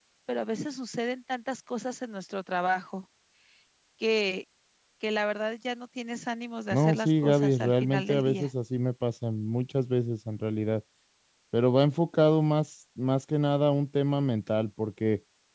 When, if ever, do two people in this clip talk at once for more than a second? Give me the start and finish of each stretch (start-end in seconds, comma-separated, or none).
6.7-8.5